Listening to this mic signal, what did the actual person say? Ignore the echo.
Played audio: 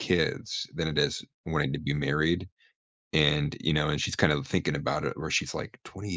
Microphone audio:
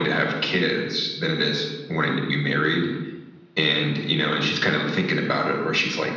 none

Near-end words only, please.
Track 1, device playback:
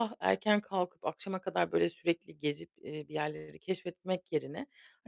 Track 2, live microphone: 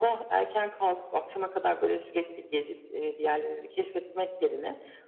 none

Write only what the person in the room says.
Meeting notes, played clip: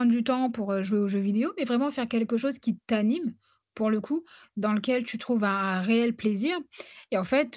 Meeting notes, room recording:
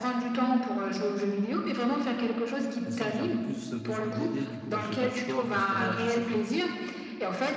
je sens que j'ai un peu plus euh, besoin de l'aider, du coup, bah, je fais pas de sport parce que voilà je sais que,

